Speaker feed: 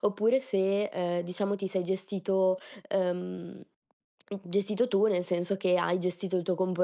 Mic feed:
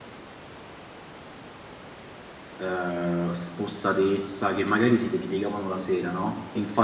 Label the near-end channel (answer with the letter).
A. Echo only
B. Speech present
B